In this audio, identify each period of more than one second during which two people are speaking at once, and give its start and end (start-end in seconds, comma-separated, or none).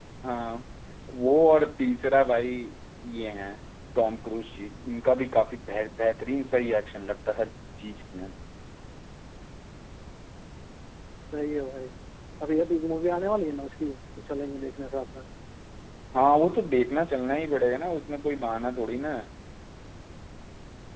none